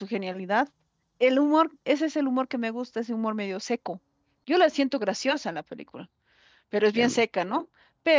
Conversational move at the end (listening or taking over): listening